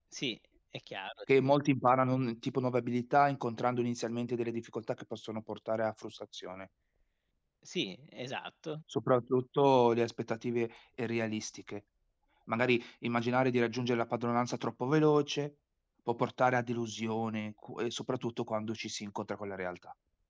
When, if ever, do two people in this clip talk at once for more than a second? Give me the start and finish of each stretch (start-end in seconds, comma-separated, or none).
none